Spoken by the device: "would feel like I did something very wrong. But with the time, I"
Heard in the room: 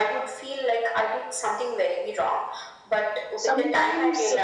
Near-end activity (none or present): present